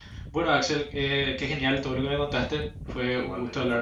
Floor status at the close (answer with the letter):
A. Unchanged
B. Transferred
A